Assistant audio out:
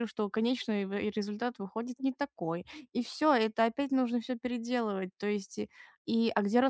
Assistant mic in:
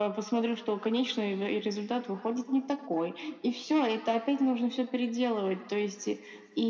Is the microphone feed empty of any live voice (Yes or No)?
Yes